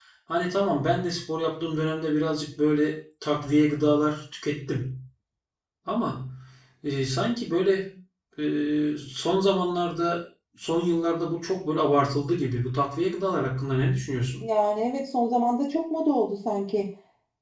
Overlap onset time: none

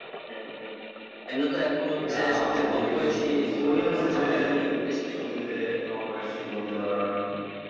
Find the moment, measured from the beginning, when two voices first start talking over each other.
2 s

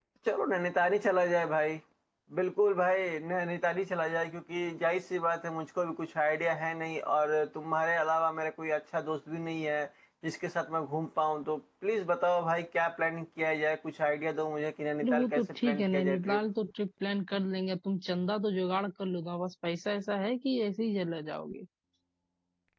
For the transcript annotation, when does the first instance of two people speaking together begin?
15 s

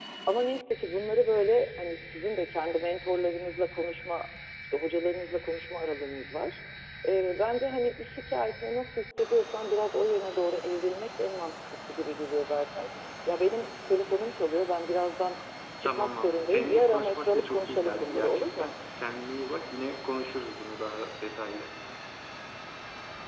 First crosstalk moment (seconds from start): 16 s

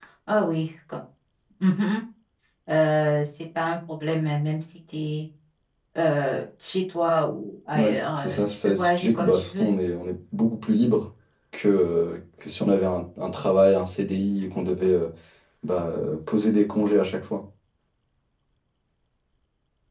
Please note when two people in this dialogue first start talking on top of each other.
8 s

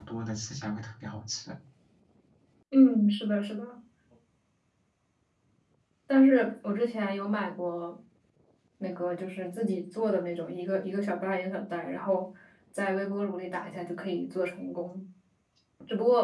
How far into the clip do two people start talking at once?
none

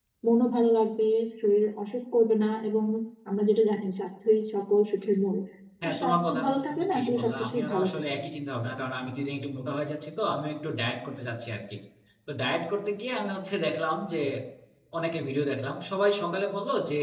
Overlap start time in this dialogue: 6 s

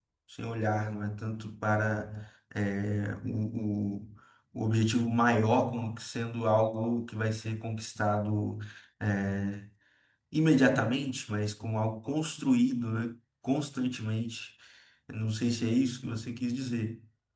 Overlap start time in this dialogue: none

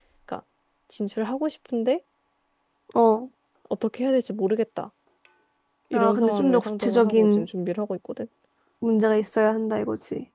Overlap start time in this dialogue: 6 s

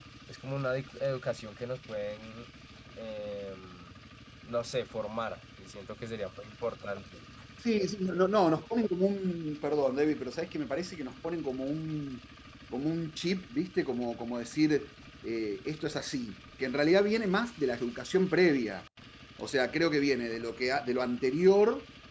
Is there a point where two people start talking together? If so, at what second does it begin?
none

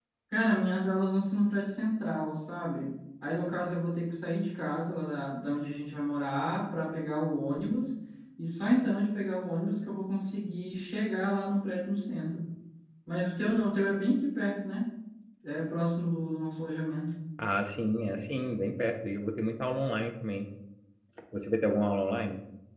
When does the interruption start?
none

